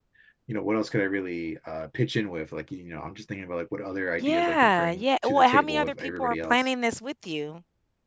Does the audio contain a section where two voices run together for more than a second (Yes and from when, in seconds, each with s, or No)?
Yes, from 4.2 s